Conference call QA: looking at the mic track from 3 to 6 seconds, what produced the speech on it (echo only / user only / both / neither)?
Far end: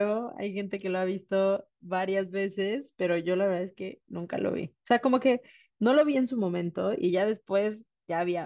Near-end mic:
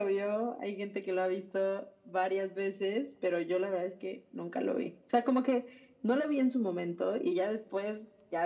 echo only